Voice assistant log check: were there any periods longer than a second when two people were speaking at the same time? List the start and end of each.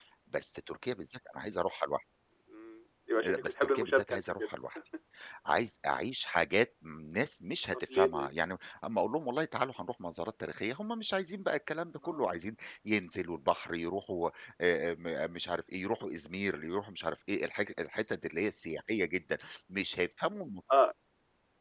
3.2-4.5

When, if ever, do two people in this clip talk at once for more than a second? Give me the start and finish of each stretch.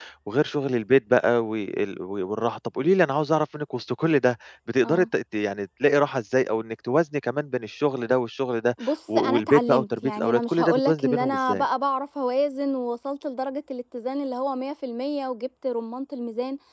8.8-11.7

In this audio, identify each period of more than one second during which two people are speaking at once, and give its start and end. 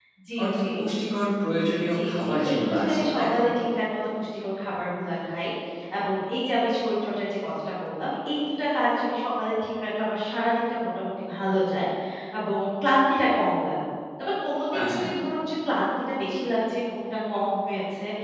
1.9-3.4

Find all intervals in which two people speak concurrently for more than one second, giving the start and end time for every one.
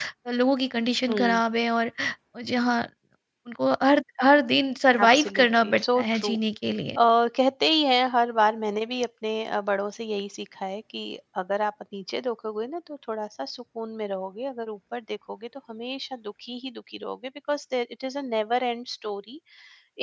5.0-6.3

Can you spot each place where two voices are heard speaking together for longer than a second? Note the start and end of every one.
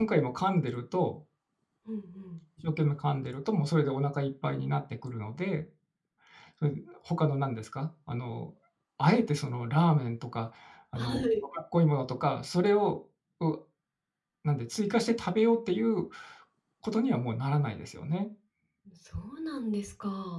none

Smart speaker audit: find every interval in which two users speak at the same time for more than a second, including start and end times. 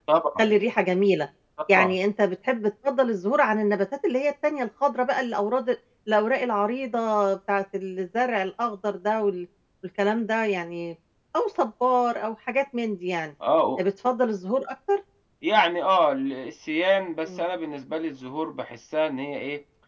none

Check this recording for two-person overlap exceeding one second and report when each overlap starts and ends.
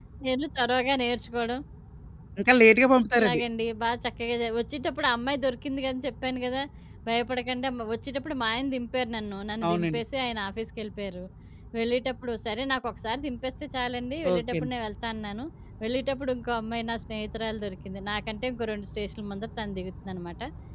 none

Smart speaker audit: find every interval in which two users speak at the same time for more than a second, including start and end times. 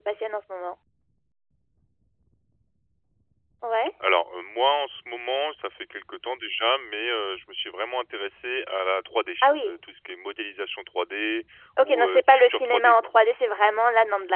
11.8-13.1

